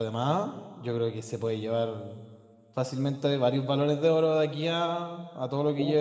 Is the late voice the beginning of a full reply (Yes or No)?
Yes